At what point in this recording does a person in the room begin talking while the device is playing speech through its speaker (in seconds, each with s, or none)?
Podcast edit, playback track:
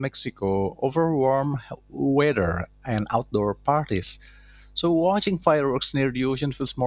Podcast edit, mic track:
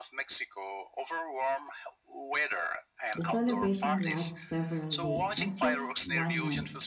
3.1 s